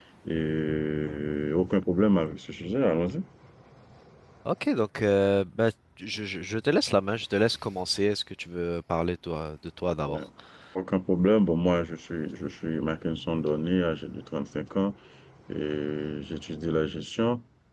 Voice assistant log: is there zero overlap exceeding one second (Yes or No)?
Yes